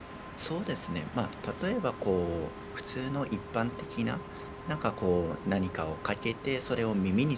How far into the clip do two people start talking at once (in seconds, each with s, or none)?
none